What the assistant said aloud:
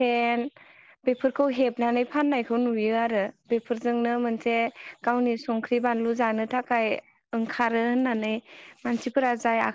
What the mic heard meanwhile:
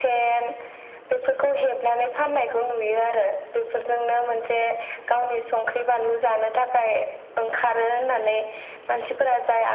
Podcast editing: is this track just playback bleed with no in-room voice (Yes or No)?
Yes